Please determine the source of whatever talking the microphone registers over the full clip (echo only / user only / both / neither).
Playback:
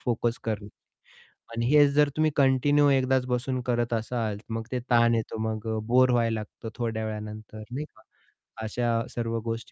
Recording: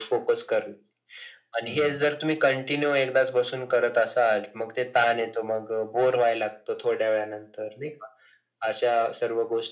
both